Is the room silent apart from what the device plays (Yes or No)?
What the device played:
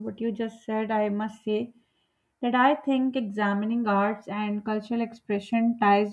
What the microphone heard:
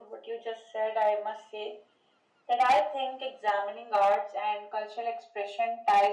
Yes